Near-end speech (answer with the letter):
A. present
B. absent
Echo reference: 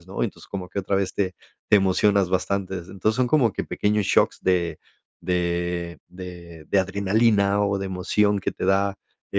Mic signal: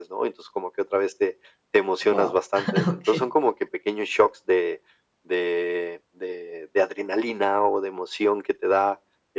A